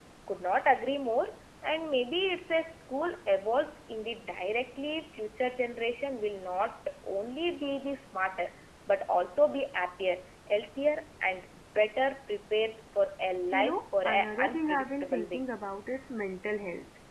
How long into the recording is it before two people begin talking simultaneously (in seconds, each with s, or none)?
13.4 s